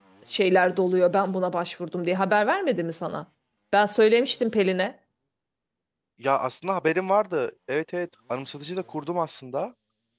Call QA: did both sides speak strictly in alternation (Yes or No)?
Yes